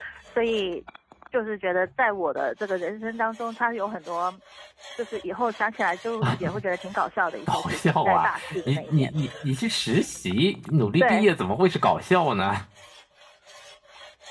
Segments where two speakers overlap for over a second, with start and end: 7.5-9.1

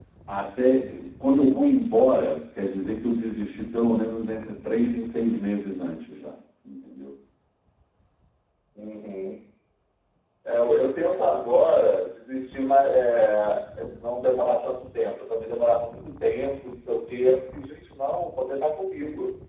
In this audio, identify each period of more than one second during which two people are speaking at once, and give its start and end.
none

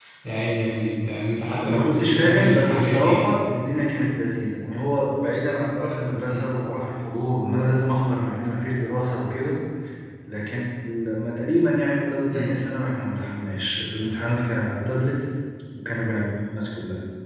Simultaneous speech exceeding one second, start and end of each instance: 1.6-3.2

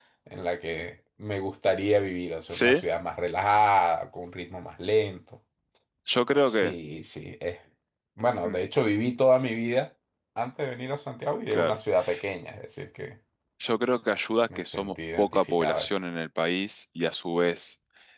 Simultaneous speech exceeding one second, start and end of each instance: 14.6-15.9

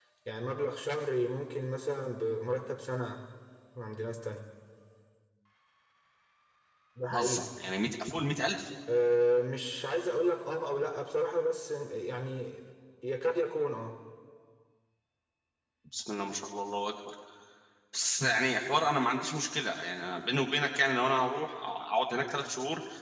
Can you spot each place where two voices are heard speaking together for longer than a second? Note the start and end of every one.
none

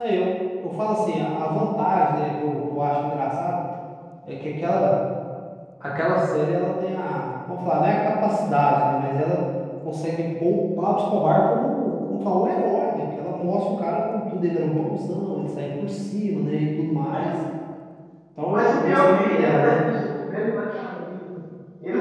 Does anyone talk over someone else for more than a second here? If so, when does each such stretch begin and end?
18.4-19.8

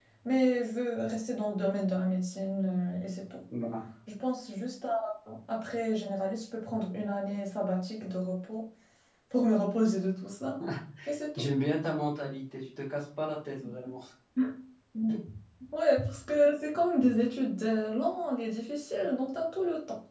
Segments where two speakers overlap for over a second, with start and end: none

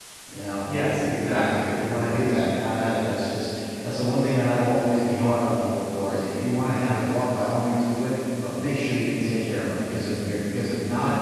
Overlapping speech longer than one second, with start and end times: 0.9-2.4

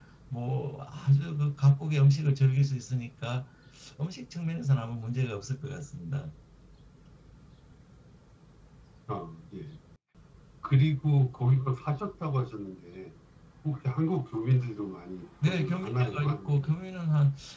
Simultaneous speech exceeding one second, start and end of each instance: 15.4-16.7

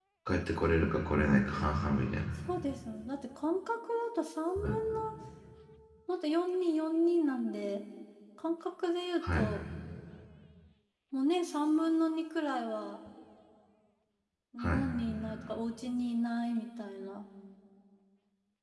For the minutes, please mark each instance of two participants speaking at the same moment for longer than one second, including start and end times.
none

